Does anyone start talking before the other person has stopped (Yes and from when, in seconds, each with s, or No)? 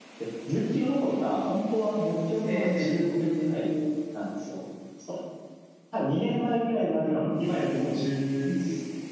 Yes, from 2.5 s